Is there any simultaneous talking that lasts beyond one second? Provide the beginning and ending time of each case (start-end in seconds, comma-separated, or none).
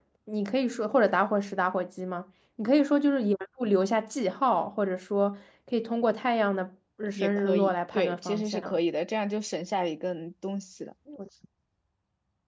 7.2-8.8